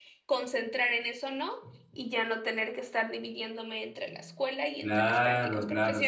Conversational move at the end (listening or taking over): taking over